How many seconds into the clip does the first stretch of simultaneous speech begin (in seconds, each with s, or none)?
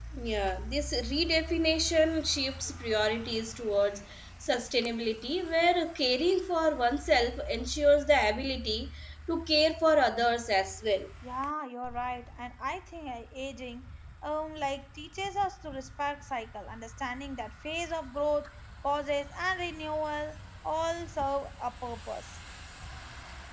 none